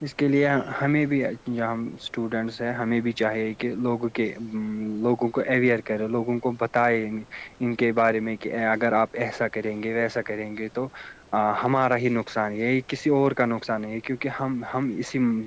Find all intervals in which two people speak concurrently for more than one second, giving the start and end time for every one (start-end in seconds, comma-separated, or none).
none